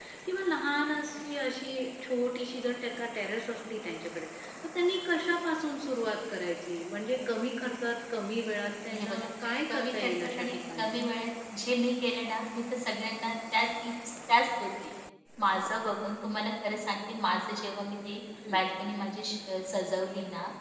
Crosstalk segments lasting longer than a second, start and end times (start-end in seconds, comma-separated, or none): 9.7-10.9